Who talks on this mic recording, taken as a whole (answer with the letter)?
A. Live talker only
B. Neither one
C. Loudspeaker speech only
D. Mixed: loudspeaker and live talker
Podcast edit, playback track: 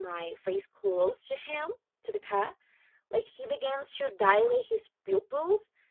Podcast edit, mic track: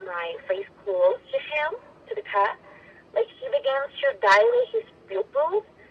C